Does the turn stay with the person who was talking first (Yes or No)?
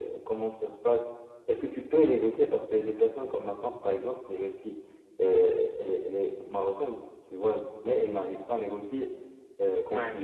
Yes